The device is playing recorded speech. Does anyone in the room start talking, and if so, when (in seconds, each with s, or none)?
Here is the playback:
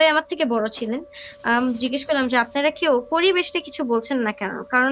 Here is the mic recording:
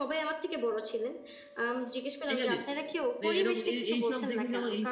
2.3 s